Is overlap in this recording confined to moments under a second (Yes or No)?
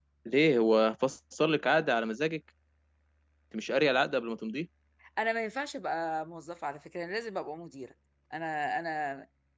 Yes